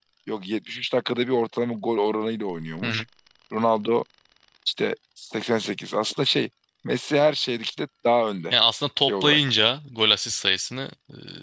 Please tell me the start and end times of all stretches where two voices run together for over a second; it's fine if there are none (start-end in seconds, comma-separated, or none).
none